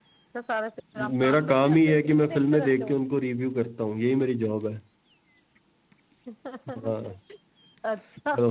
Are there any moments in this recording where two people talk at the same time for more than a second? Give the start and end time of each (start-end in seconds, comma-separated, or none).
1.2-3.0